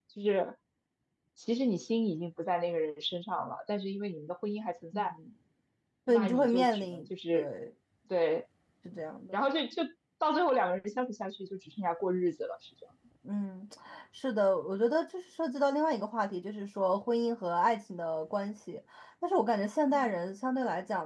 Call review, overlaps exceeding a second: present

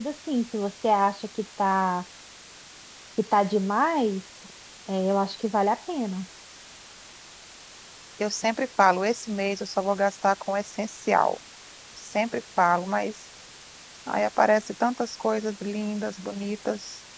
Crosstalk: none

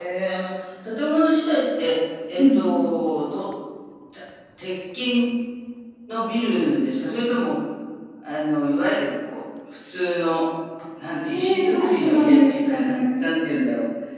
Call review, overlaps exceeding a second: present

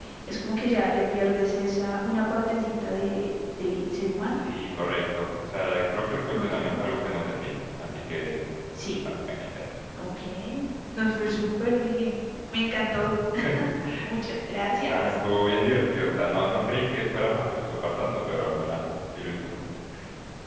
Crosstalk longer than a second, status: none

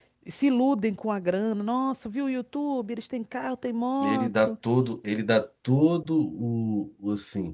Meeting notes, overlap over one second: none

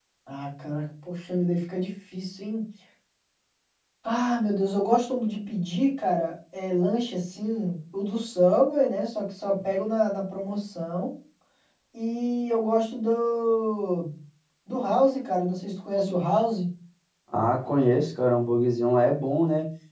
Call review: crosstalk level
none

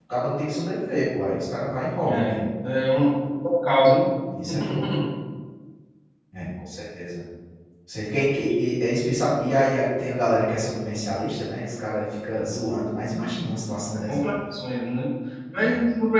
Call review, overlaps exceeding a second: none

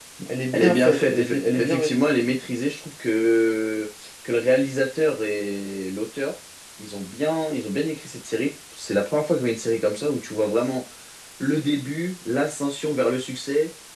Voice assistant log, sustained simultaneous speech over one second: present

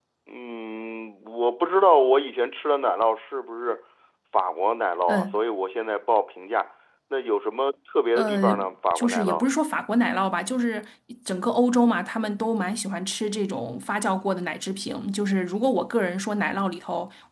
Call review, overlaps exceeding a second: none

